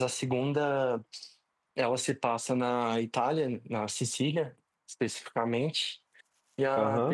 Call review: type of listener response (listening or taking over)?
taking over